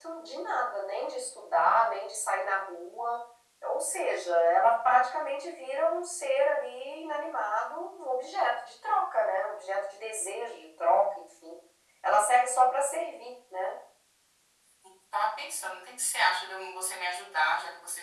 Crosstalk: none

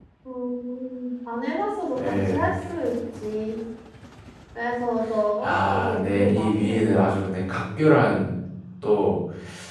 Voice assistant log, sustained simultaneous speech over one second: present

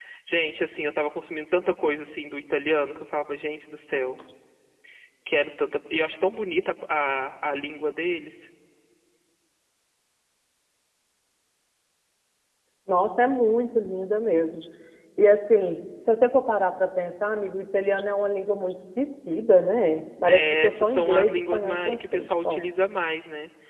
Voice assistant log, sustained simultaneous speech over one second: present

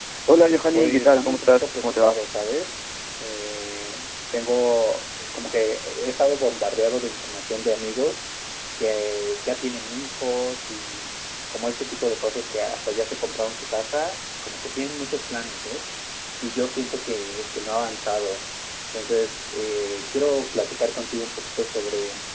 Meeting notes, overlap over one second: present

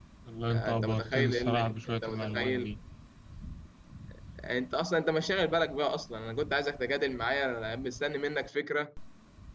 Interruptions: present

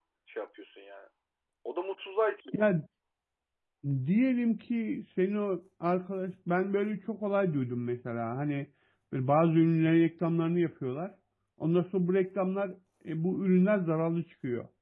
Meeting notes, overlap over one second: none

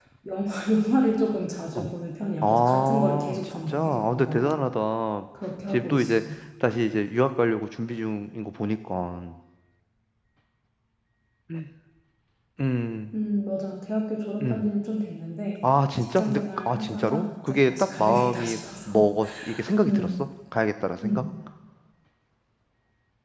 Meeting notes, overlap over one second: present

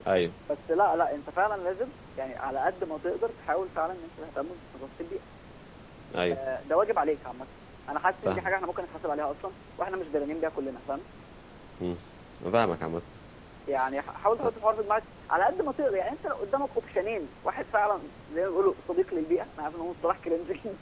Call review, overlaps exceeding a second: none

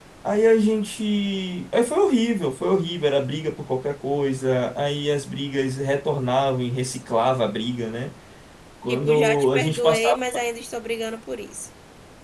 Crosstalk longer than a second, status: present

